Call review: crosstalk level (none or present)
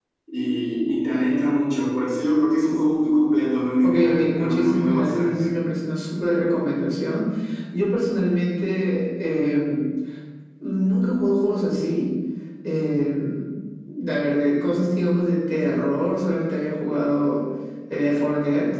present